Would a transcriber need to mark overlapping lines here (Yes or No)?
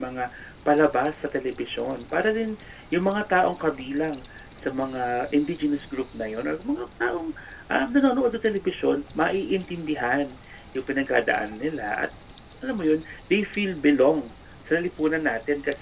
No